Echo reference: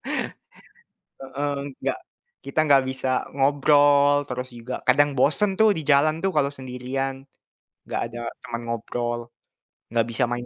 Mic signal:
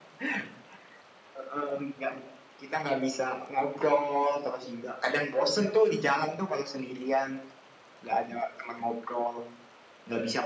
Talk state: echo only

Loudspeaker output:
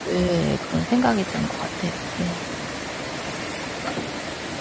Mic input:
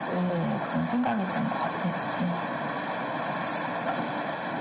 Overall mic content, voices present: echo only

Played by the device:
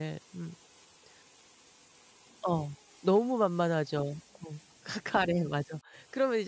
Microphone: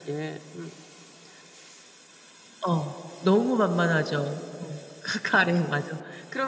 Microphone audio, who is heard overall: echo only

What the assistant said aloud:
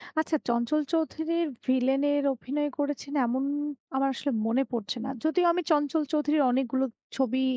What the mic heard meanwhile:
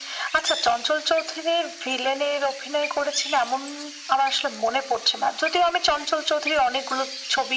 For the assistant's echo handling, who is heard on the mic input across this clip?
echo only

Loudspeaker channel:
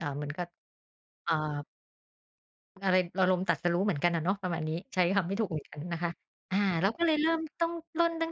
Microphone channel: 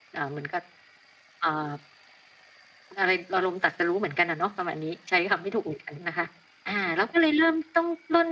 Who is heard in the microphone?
echo only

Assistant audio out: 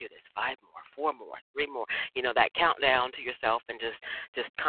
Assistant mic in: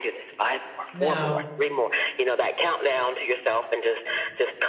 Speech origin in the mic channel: both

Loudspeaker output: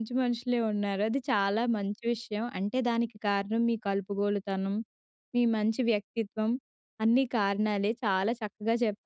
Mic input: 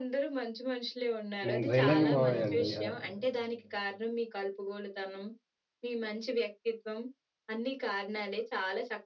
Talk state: both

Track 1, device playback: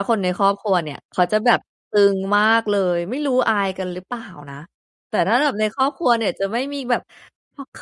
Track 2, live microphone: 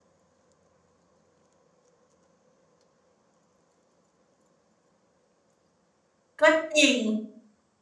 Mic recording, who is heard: user only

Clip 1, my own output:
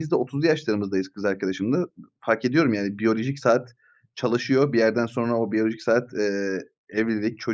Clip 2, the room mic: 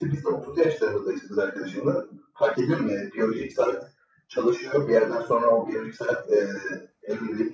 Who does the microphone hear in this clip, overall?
echo only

